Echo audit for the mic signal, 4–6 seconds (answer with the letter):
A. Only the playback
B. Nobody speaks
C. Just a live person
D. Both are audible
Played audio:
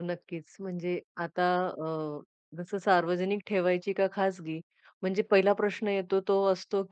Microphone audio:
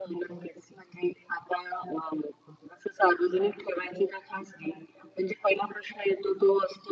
A